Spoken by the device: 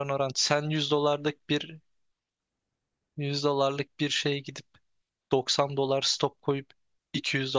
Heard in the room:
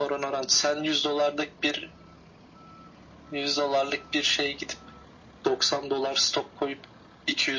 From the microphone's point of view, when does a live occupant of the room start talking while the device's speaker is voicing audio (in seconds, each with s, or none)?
none